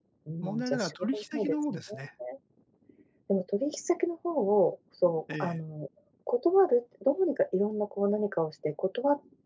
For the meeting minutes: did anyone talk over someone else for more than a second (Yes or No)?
Yes